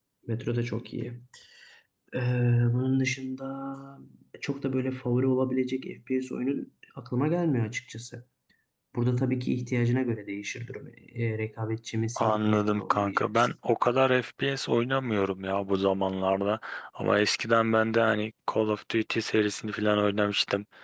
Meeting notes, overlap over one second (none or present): present